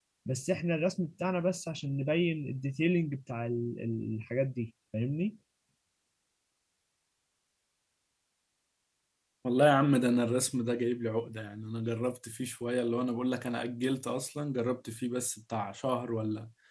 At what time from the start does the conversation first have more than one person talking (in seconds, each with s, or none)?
none